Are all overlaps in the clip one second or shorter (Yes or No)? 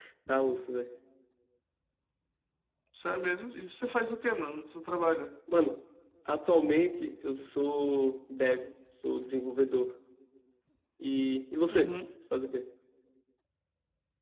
Yes